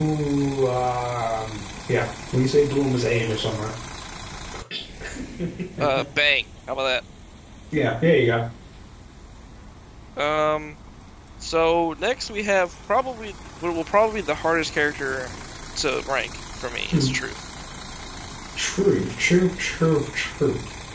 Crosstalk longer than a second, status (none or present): none